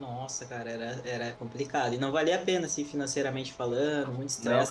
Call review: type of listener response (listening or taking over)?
listening